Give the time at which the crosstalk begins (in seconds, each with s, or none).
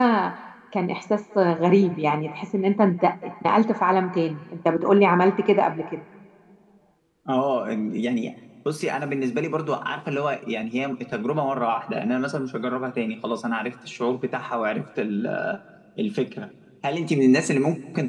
none